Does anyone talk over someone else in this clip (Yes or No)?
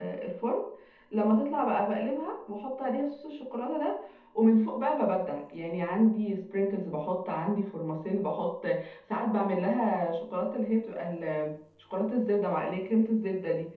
No